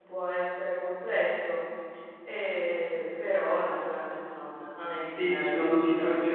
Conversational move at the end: taking over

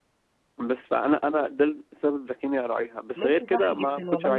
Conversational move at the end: taking over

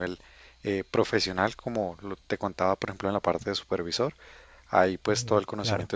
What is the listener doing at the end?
listening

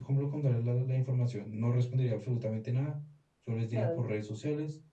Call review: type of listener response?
listening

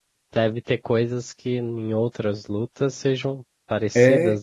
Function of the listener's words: taking over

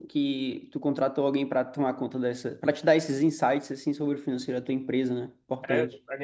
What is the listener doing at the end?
taking over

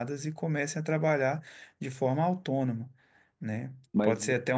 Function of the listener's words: listening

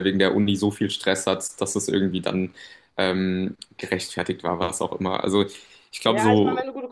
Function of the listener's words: taking over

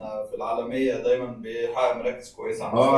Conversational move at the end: taking over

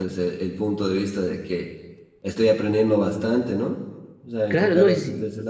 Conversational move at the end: taking over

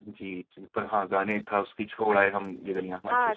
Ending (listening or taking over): taking over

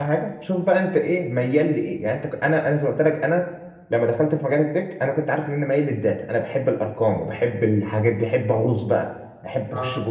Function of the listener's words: listening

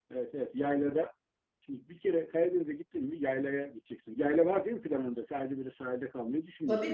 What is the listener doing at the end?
taking over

